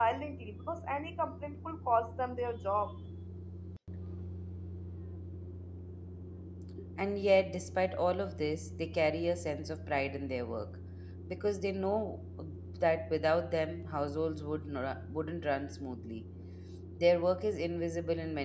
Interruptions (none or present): none